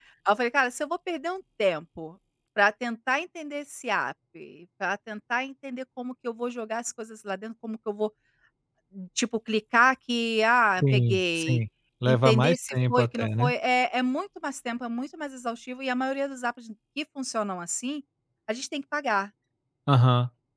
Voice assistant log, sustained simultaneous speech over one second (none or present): present